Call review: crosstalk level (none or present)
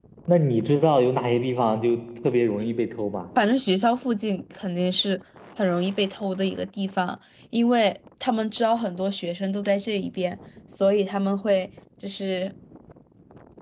none